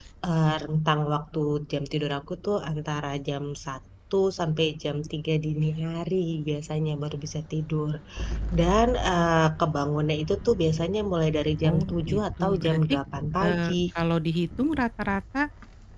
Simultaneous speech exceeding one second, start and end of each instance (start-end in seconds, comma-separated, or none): 11.7-12.9